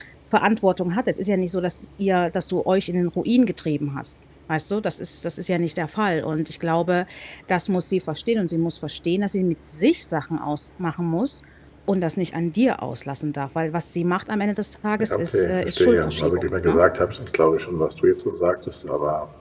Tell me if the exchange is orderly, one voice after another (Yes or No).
No